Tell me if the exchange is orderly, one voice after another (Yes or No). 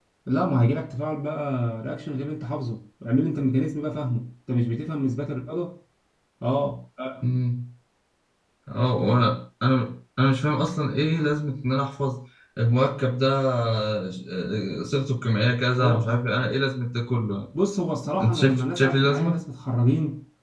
No